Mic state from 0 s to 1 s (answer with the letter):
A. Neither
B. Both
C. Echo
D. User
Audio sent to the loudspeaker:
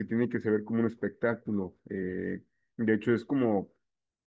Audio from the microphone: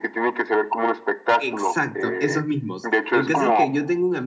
C